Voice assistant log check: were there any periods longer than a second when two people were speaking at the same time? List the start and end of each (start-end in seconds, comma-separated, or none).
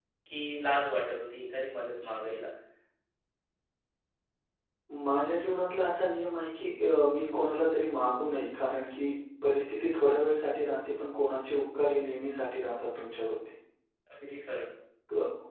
none